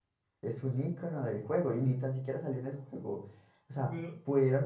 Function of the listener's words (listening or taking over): listening